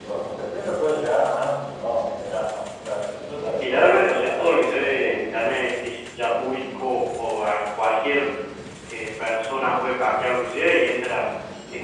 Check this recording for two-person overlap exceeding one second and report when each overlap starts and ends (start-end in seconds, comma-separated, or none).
3.6-5.3